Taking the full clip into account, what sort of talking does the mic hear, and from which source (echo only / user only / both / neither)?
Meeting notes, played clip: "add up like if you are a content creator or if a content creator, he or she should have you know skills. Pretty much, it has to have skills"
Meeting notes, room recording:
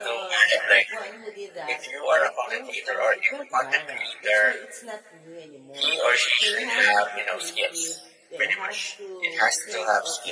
both